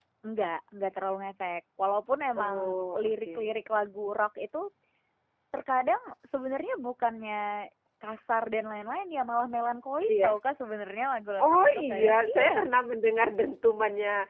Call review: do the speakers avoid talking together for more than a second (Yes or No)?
No